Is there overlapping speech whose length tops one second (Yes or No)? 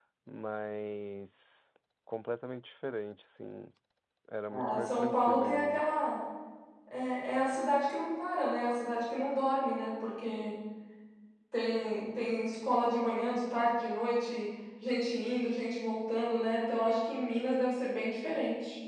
Yes